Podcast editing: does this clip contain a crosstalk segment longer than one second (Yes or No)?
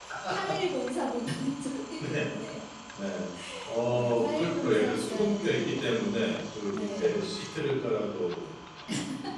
Yes